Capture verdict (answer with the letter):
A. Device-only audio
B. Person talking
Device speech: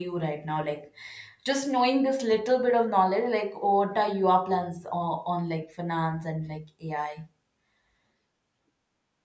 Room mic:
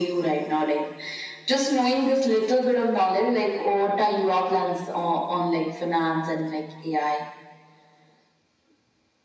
A